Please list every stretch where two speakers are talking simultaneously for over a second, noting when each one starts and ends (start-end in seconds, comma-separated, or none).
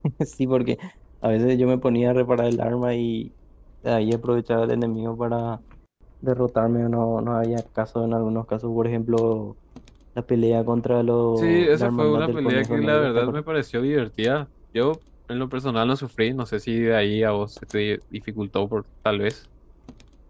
11.4-13.4